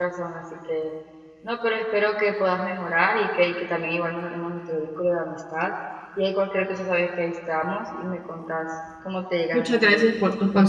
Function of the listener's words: taking over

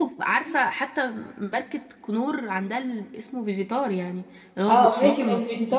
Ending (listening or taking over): taking over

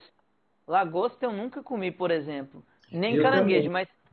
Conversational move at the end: listening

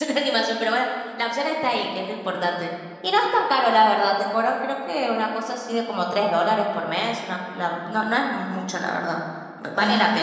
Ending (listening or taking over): taking over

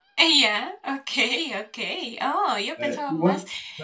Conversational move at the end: taking over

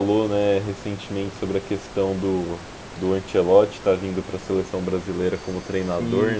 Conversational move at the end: listening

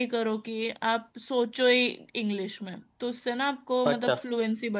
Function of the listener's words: listening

